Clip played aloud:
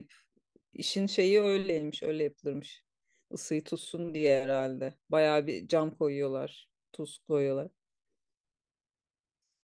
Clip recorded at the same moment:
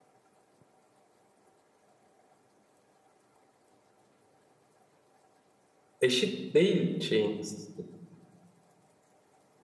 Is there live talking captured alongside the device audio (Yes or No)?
Yes